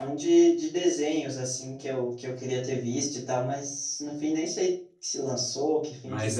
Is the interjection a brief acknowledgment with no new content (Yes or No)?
No